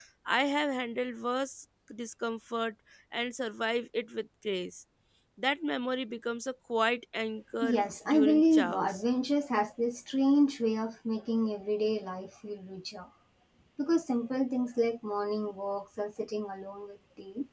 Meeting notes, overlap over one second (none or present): present